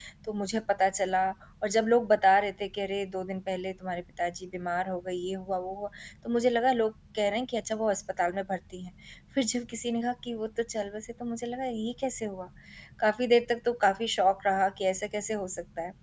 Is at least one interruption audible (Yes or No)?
No